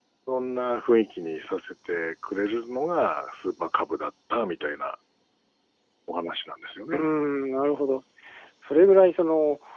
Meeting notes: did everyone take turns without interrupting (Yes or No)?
Yes